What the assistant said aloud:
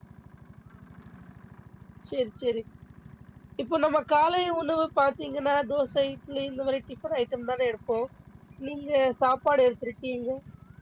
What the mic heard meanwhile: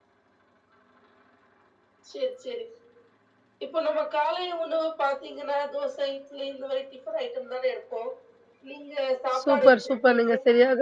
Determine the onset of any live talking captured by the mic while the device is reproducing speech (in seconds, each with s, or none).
9.4 s